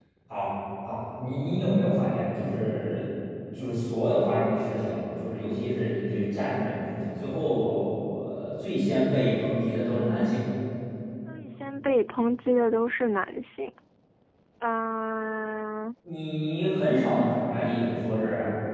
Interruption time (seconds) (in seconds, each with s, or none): none